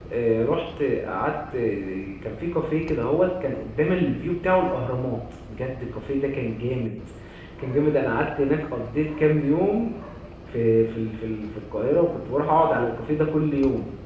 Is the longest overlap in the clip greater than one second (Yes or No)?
No